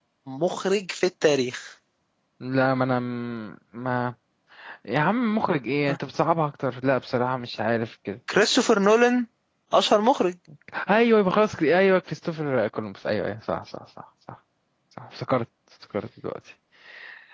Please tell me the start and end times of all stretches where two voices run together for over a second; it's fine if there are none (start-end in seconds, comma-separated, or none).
none